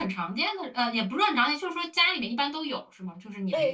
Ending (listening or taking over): taking over